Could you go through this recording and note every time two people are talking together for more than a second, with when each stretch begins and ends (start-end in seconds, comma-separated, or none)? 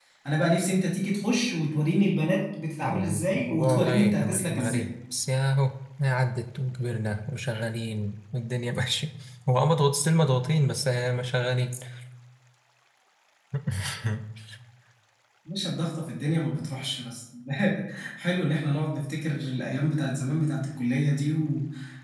2.8-4.9